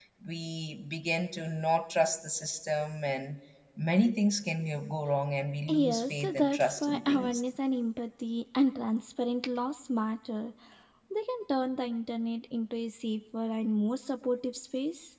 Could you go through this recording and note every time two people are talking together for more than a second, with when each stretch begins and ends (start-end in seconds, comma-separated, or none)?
5.7-7.4